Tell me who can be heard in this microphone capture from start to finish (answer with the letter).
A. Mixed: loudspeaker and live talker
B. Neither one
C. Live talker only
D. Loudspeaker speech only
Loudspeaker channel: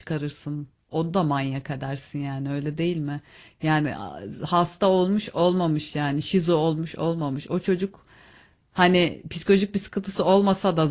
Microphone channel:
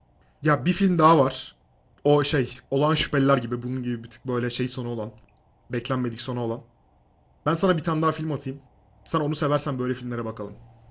C